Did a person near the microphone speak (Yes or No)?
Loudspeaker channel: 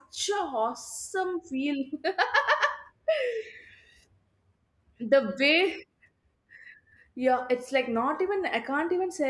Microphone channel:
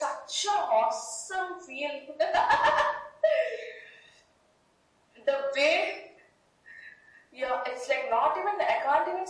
No